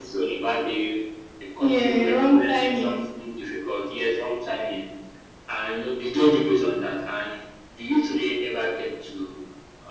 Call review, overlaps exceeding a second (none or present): present